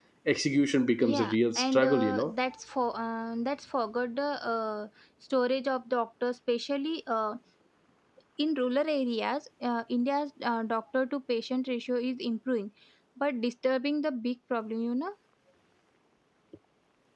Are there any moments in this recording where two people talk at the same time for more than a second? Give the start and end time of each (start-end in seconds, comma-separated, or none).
1.0-2.3